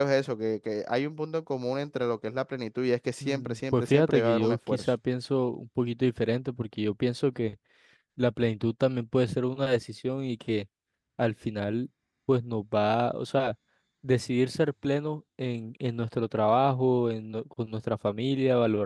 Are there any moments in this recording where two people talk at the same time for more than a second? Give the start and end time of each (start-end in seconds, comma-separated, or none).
3.2-4.9